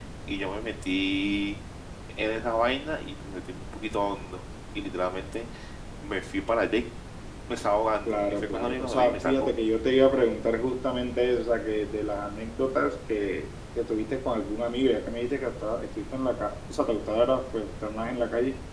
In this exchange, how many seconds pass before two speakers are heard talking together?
8.1 s

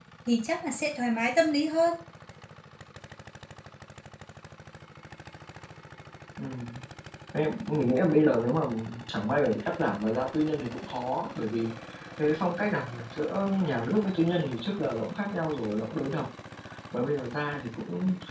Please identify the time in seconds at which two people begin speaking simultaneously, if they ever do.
none

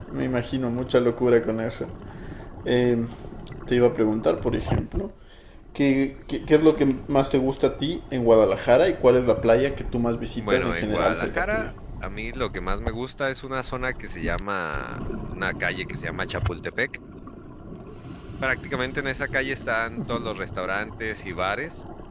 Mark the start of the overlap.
10.4 s

